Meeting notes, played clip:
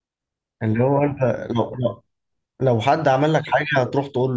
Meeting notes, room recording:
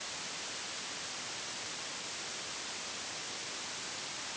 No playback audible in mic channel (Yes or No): Yes